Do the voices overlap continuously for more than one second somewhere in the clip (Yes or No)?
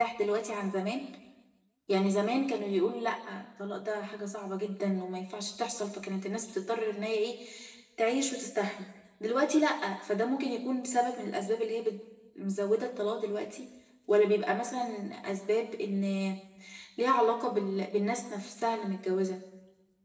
No